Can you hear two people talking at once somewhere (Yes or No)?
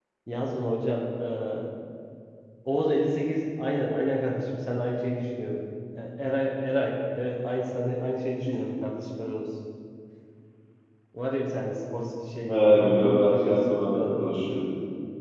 Yes